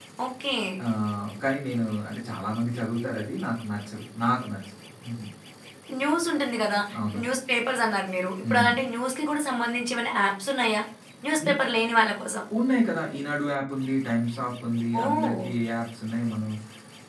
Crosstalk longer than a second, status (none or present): none